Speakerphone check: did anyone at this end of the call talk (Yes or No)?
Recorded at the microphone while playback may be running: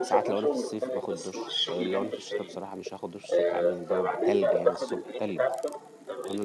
Yes